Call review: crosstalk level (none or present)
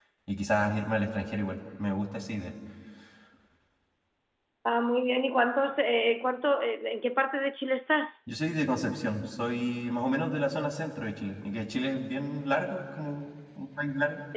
none